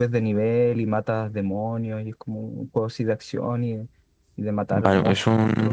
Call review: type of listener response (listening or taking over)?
taking over